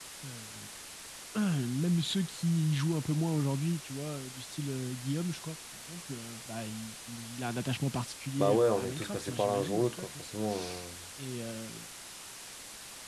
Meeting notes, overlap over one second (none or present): present